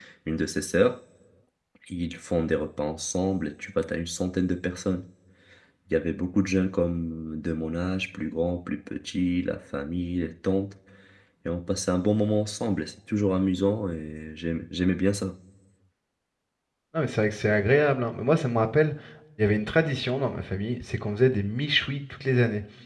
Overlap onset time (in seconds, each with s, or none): none